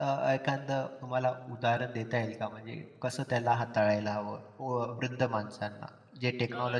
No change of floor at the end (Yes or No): No